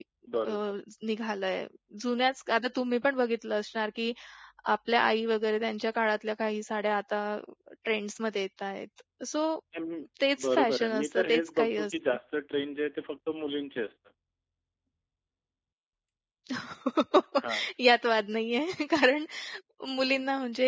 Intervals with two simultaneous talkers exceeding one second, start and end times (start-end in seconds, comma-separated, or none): 10.4-12.2